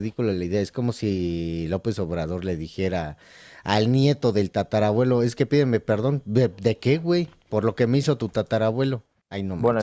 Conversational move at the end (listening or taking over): taking over